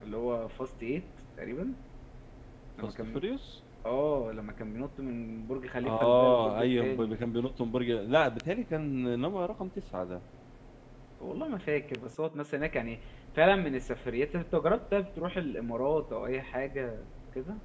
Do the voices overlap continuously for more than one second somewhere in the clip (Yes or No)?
Yes